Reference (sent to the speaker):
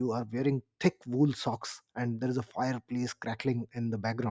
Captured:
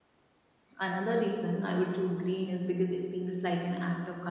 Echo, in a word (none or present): none